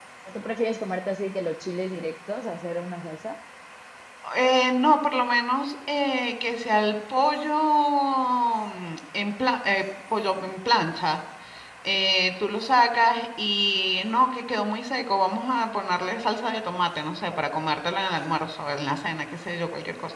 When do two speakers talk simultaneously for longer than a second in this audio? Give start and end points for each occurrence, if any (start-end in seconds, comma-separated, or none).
none